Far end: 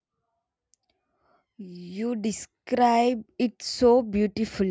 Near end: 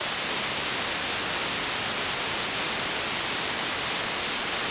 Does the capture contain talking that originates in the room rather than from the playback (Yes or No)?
No